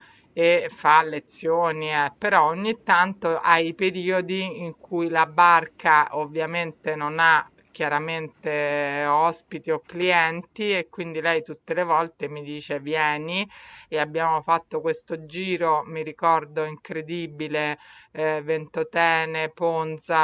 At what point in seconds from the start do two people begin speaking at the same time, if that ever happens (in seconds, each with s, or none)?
none